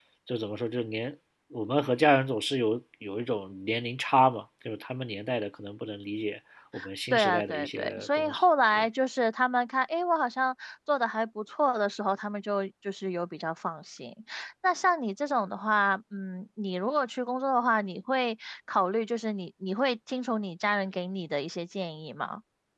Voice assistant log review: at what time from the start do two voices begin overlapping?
7.1 s

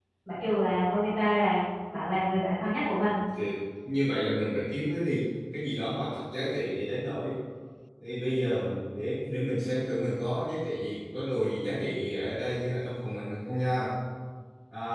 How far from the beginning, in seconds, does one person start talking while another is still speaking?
none

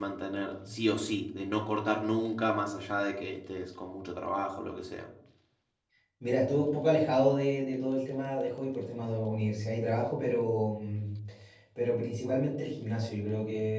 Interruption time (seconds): none

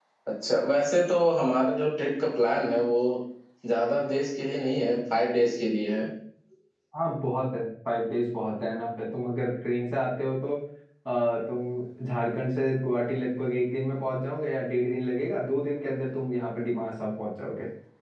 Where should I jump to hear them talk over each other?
none

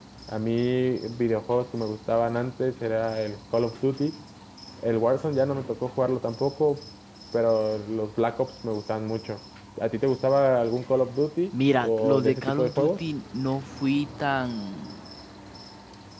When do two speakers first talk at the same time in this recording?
11.5 s

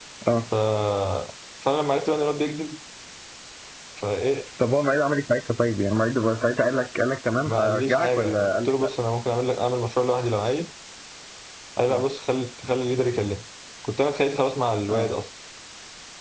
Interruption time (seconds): 7.5 s

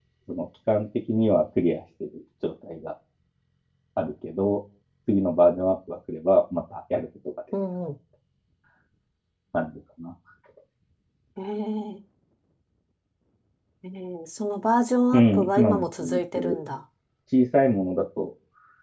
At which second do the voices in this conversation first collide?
15.1 s

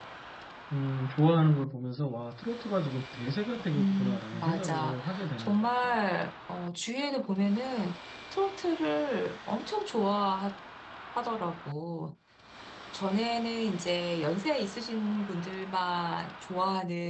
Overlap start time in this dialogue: 3.8 s

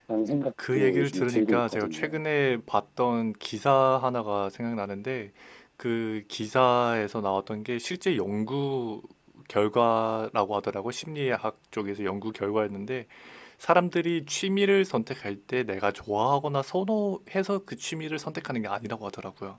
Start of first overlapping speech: 0.7 s

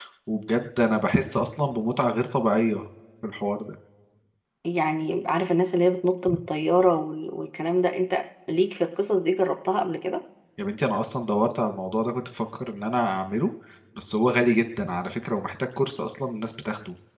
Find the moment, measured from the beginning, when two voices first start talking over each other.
none

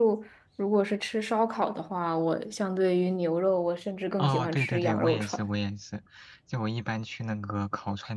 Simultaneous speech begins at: 4.2 s

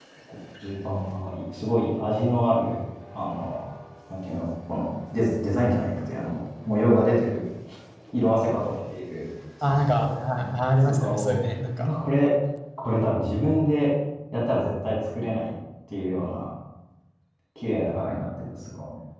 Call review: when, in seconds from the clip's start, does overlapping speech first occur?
9.6 s

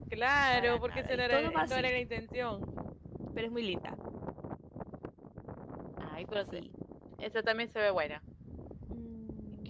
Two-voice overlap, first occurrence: 0.5 s

